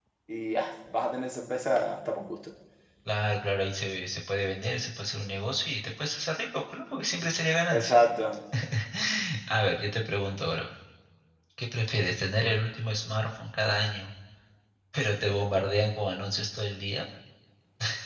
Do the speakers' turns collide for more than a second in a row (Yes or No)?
No